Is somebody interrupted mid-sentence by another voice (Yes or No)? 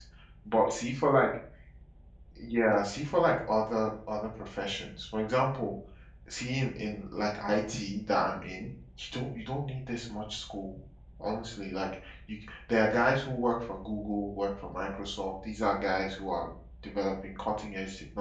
No